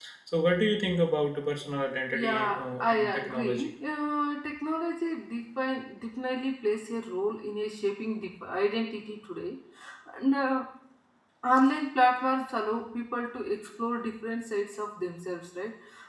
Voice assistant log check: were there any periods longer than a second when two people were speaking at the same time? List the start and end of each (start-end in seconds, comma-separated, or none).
2.1-3.7